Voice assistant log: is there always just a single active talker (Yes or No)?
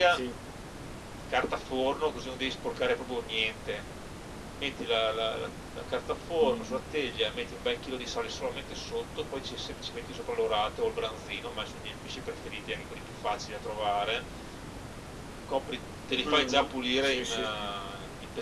No